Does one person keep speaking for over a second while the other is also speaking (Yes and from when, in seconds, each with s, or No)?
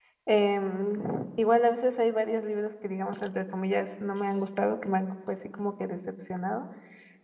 No